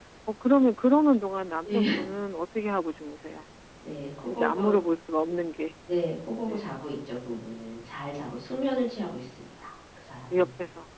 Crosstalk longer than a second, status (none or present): none